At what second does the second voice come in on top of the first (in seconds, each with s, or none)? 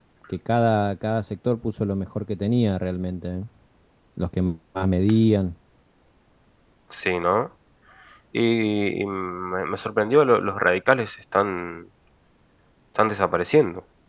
none